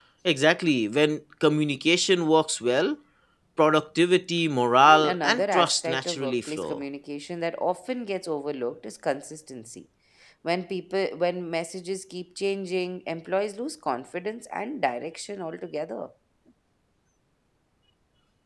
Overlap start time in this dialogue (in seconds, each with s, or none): 4.9 s